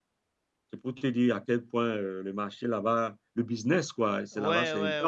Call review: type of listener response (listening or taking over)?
taking over